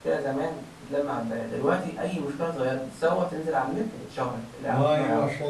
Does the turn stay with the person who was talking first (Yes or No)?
No